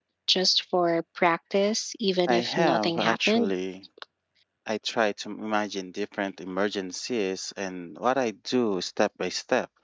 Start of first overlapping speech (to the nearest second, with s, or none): 2 s